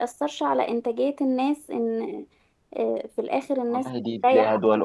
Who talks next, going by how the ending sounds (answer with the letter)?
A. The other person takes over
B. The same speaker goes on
A